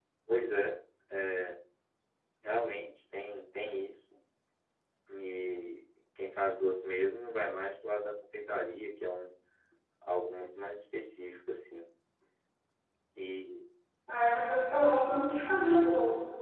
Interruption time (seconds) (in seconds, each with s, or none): none